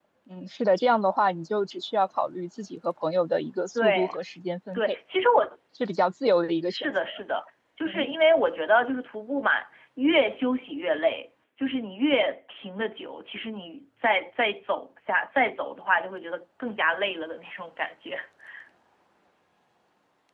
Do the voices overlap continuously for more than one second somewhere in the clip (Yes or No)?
No